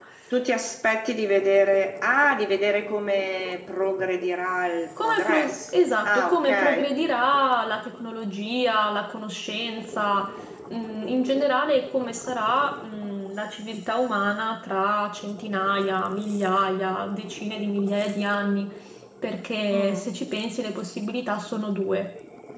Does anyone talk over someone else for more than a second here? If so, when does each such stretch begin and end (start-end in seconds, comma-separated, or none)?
5.0-6.9